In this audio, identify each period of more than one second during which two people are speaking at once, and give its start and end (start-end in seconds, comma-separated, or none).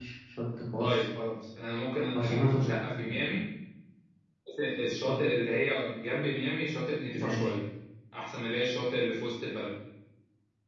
none